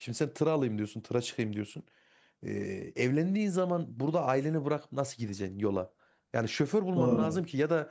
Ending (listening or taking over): listening